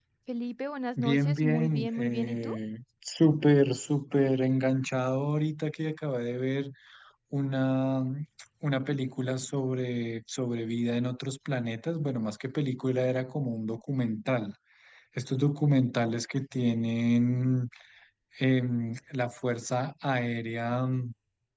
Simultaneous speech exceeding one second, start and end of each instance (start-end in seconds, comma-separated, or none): 1.0-2.6